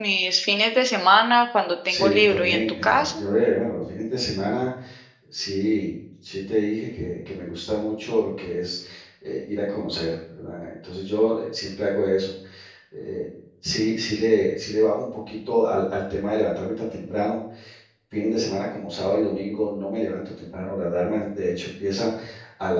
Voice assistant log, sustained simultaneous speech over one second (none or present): present